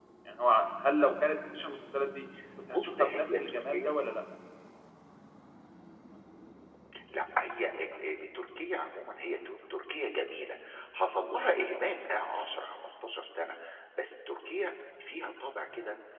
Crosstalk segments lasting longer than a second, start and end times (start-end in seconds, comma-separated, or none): 2.7-3.9